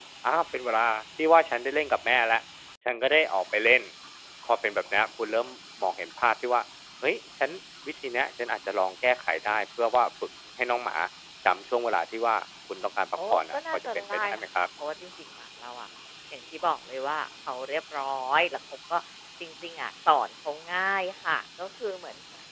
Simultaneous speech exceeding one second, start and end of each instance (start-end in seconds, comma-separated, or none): 13.2-14.4